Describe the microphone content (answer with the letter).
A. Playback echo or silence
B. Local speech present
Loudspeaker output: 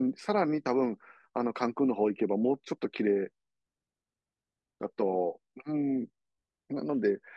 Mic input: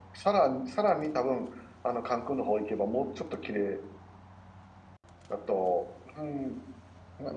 A